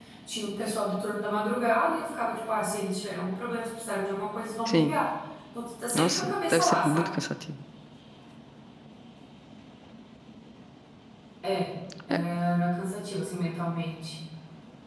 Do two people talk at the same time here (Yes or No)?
Yes